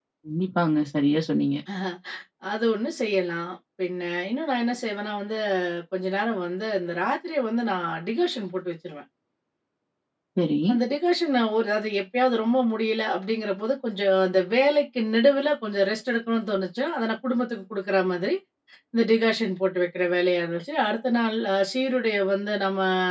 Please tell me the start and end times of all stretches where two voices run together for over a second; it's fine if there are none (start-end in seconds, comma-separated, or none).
none